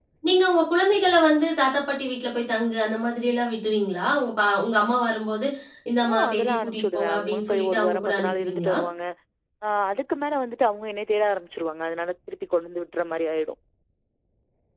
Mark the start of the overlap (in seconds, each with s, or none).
6.1 s